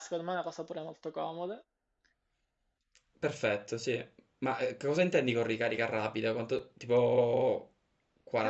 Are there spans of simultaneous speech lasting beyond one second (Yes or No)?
No